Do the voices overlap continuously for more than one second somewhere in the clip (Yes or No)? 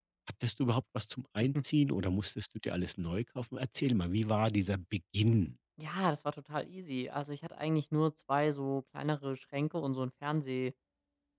No